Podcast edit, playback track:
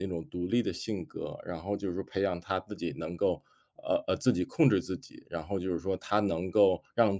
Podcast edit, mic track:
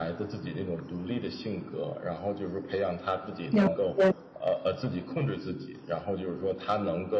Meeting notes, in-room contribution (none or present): present